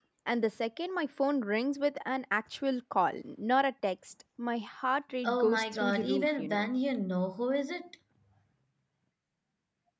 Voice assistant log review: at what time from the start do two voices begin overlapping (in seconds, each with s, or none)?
5.2 s